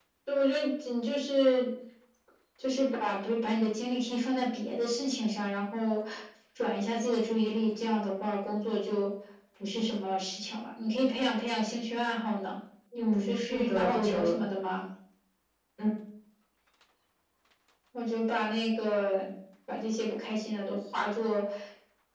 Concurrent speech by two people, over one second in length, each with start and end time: 12.9-14.4

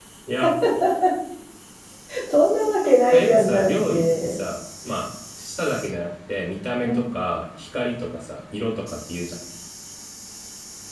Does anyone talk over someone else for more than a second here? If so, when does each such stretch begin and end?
3.1-4.4

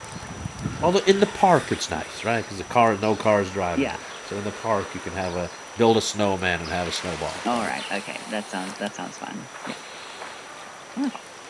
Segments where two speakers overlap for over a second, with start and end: none

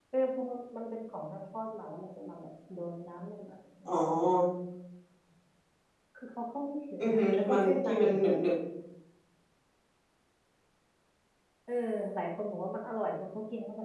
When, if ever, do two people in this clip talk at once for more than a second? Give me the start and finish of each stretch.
7.0-8.3

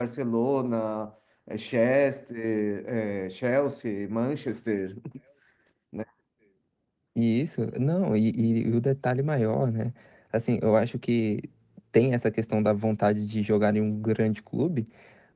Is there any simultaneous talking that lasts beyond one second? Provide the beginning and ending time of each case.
none

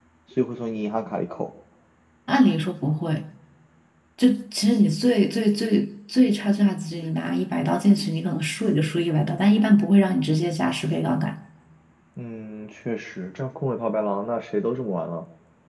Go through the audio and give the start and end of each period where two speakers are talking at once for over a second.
none

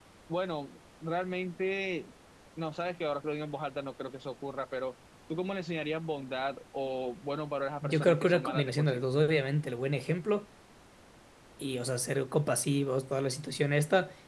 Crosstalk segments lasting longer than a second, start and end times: 7.8-9.0

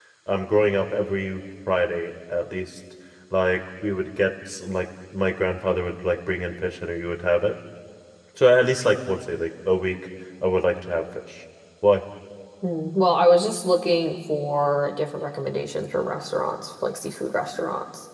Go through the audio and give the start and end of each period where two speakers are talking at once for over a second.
none

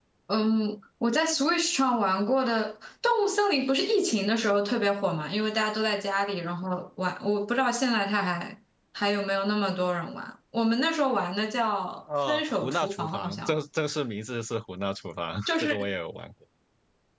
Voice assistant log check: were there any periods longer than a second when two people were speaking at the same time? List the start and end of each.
12.3-13.5

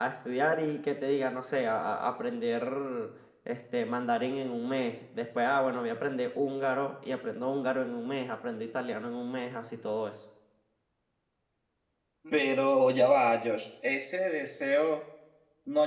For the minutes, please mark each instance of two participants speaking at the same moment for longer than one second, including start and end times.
none

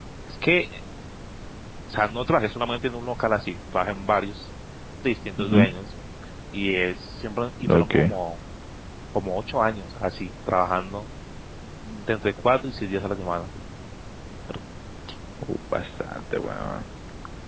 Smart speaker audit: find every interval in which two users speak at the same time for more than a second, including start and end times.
none

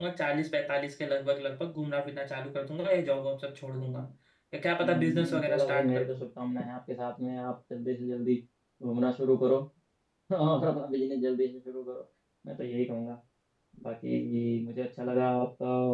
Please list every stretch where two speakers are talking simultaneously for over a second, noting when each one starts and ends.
4.8-6.1

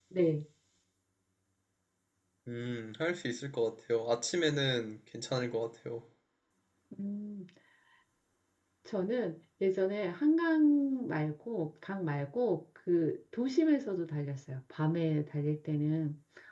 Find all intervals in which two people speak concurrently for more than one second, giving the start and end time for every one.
none

